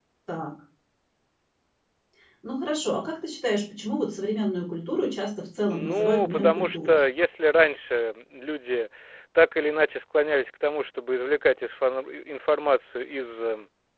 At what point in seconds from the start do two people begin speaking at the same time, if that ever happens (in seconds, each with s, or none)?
5.7 s